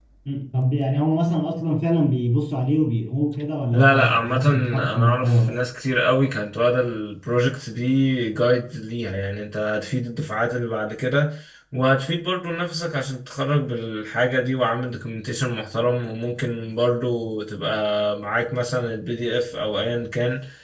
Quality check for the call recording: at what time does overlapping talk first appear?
3.7 s

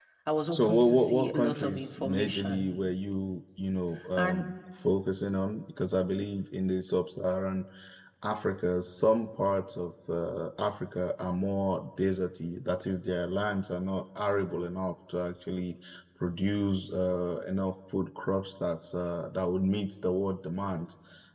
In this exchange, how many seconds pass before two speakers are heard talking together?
0.5 s

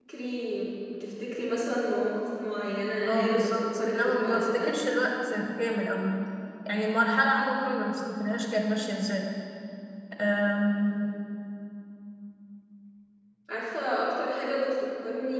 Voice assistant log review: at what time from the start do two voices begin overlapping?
3.1 s

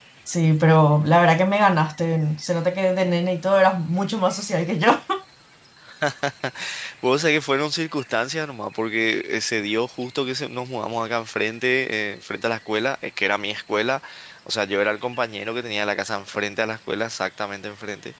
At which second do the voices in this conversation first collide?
none

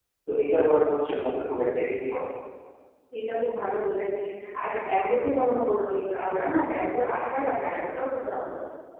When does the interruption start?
none

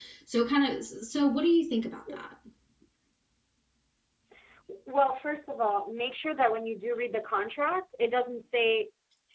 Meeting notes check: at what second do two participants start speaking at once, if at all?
none

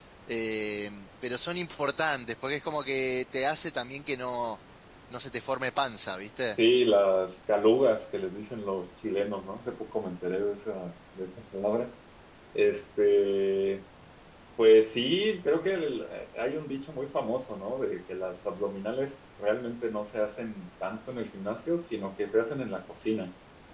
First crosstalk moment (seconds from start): none

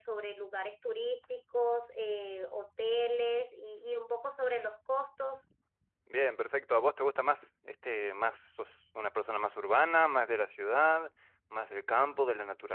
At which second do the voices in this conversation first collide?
none

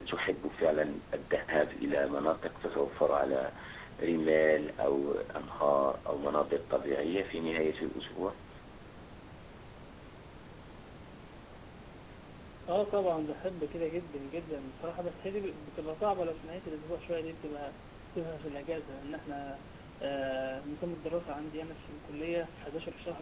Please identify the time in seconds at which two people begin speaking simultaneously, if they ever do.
none

